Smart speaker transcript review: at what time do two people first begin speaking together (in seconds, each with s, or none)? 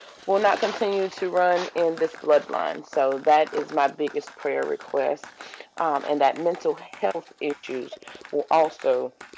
none